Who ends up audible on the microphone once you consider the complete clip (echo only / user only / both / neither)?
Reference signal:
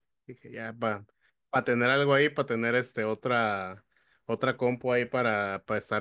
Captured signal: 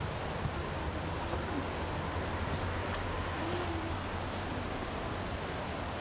neither